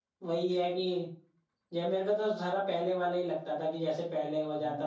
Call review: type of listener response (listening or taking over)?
taking over